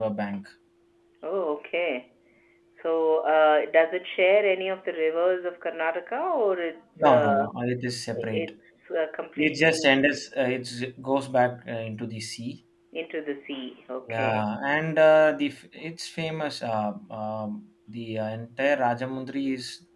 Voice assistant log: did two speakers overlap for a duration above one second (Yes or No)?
No